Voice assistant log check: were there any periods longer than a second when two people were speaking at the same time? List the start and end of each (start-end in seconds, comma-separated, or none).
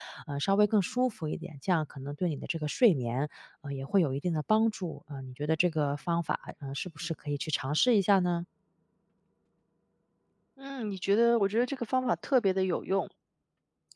none